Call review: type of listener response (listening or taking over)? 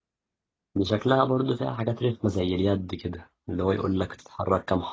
listening